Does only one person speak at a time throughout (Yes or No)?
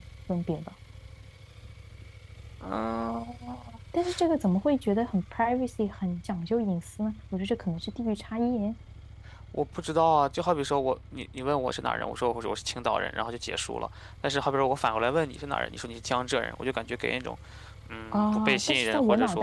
No